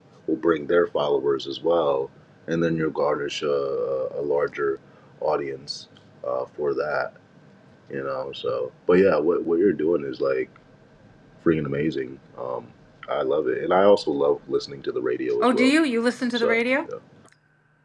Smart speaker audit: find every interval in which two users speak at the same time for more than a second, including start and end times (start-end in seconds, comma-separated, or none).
none